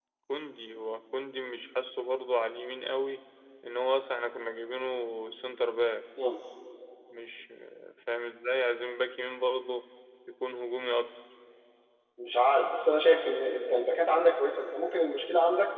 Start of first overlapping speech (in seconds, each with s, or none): none